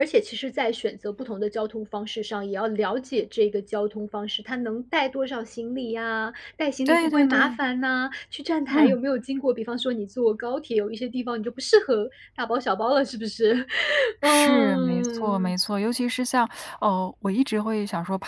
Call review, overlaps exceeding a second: present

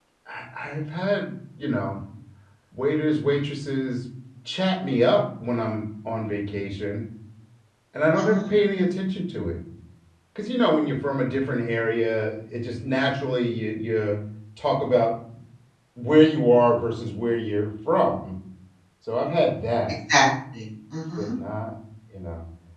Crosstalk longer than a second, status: none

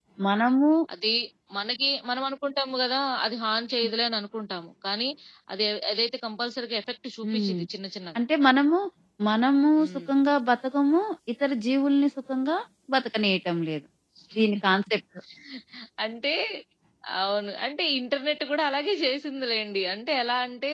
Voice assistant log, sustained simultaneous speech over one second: none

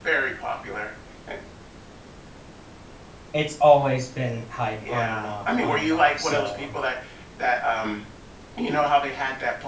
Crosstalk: present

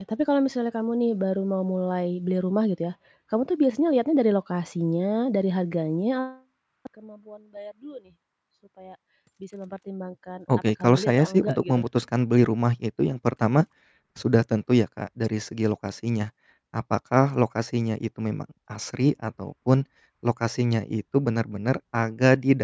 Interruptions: present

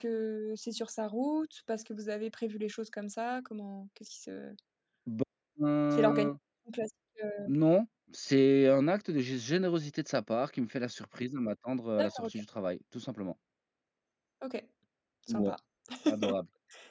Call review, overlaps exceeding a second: none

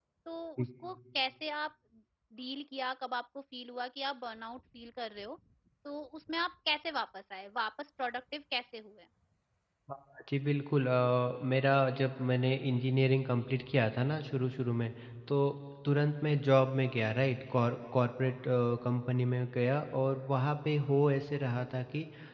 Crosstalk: none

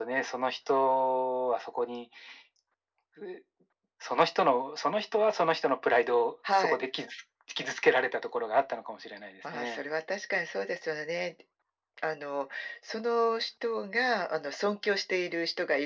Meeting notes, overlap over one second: none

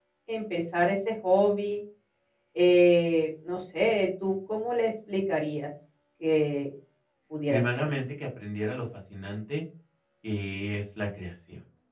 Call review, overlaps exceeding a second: none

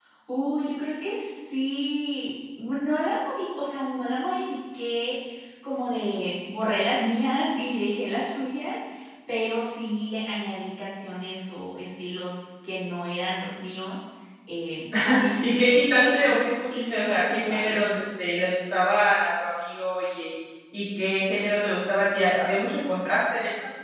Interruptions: present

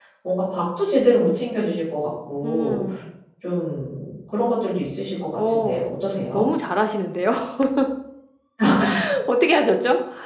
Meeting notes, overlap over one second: none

